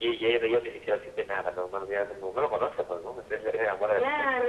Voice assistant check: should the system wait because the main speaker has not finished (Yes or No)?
No